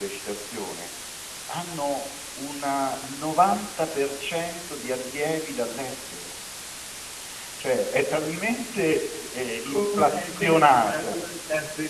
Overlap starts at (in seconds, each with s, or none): 9.7 s